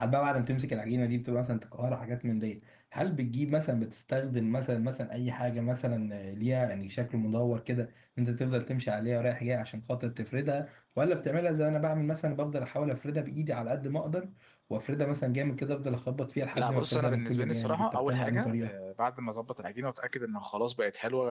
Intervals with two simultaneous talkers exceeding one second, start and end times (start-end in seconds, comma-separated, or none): 16.5-18.7